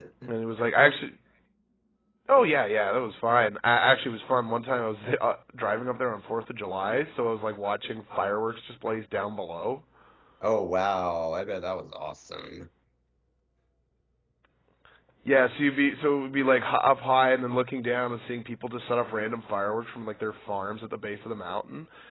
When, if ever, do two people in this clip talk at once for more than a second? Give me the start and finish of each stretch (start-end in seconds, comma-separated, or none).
none